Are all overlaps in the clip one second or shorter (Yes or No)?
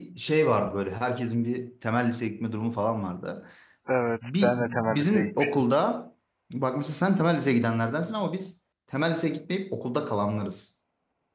No